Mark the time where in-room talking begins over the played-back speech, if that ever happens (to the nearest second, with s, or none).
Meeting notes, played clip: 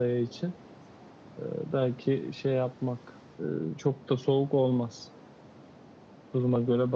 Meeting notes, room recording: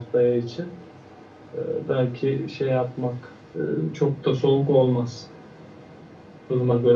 none